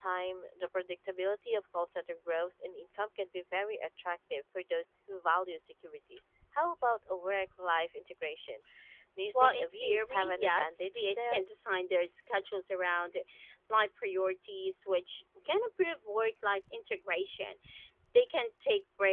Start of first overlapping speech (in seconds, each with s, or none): 9.3 s